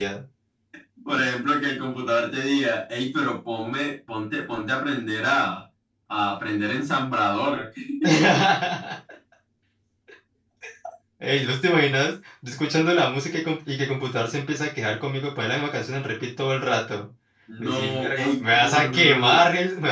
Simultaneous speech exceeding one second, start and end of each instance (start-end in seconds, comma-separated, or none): 17.6-19.4